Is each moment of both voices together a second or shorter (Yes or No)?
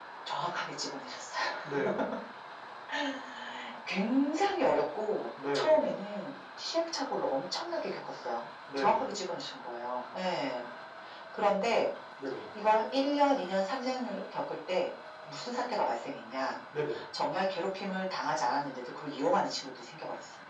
Yes